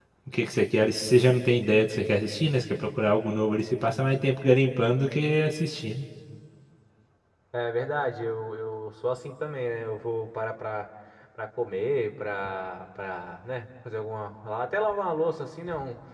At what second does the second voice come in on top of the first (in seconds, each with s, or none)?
none